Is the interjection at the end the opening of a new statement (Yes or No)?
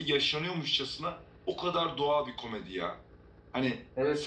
Yes